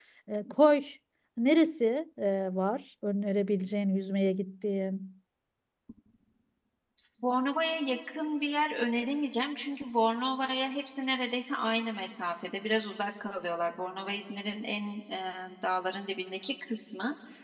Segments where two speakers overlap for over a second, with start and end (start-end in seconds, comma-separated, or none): none